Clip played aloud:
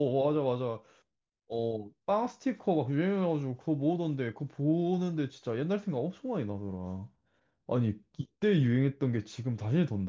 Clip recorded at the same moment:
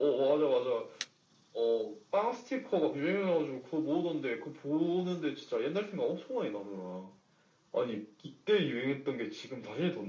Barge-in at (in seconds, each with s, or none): none